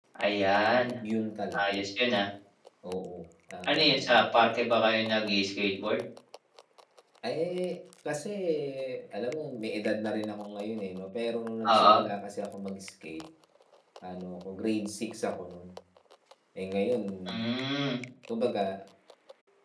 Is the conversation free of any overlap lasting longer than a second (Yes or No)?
Yes